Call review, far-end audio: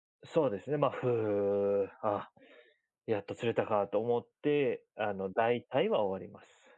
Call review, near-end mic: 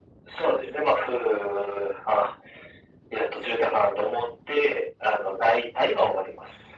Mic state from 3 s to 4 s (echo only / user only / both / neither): echo only